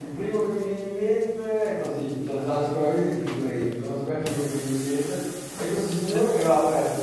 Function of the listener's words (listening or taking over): listening